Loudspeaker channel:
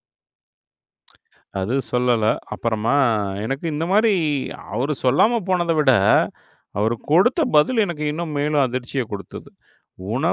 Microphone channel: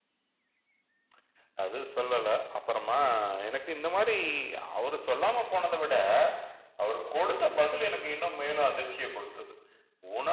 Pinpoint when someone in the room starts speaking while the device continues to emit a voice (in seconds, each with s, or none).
none